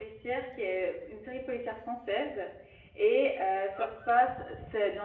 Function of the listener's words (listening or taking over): listening